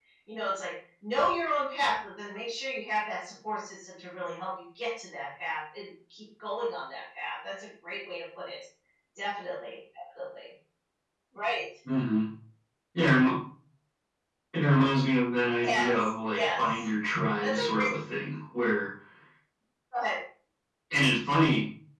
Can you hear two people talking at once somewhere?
Yes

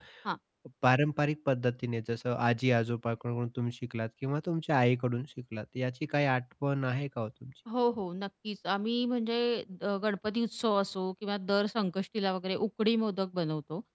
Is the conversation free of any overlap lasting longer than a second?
Yes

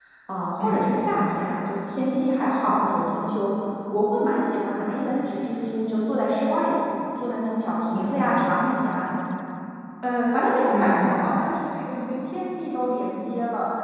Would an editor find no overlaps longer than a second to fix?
Yes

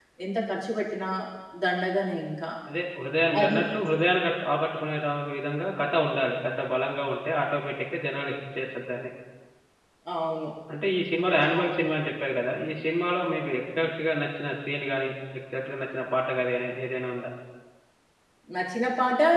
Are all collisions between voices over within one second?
Yes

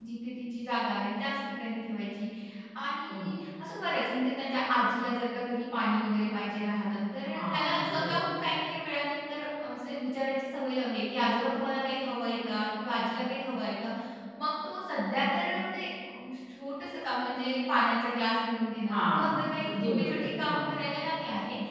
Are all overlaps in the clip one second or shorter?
No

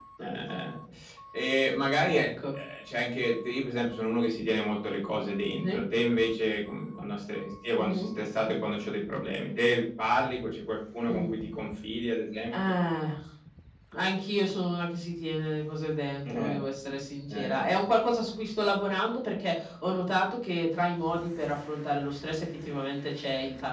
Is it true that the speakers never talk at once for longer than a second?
Yes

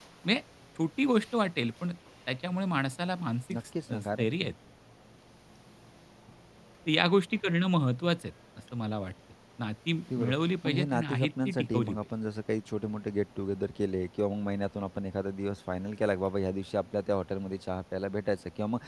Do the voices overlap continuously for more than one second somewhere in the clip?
Yes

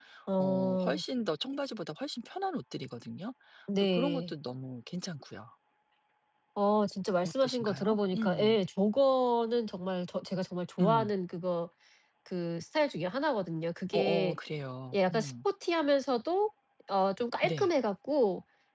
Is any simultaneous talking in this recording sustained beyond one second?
Yes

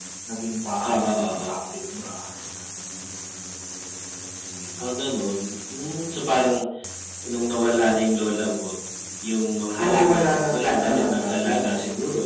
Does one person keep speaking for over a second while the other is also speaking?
Yes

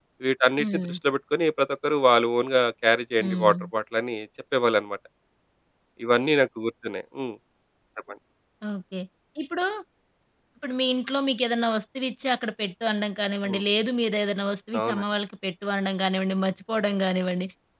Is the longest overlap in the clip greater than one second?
No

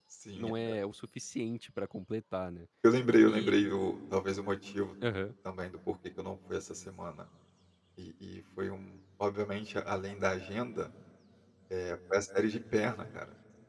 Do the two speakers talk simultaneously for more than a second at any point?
No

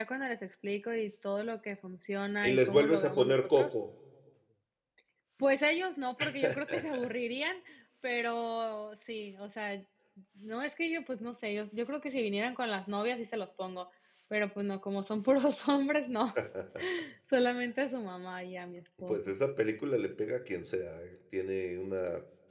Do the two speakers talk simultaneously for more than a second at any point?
Yes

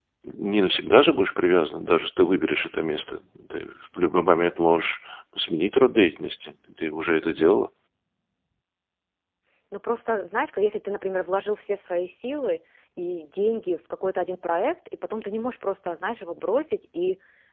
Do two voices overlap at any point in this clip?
No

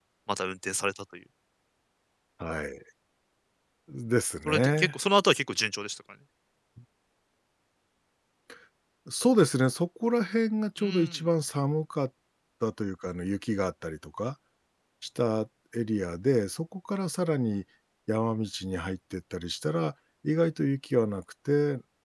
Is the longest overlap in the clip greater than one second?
No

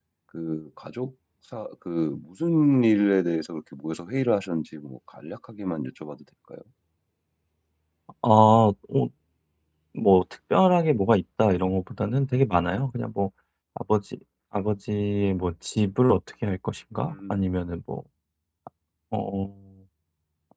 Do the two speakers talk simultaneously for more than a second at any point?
No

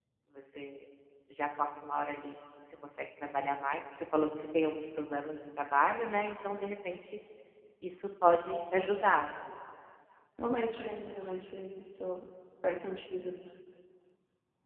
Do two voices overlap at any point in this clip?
No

